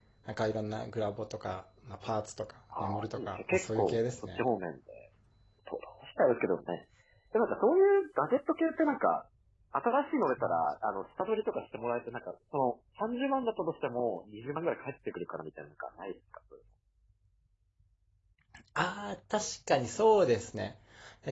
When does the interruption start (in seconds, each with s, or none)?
2.7 s